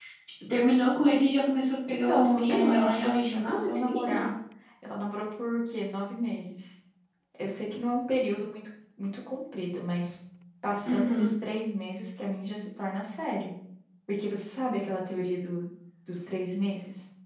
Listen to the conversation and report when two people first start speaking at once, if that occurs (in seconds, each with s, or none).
1.9 s